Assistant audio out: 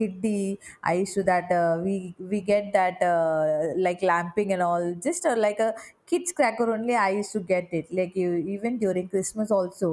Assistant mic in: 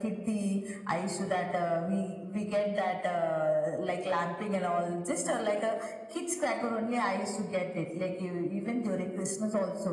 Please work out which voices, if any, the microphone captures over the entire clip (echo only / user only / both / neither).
echo only